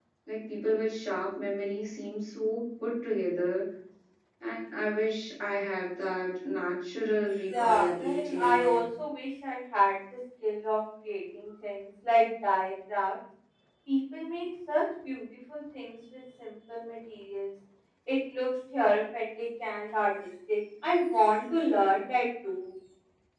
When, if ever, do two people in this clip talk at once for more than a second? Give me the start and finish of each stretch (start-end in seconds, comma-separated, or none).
7.5-8.8